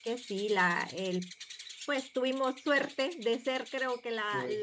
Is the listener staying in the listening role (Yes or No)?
Yes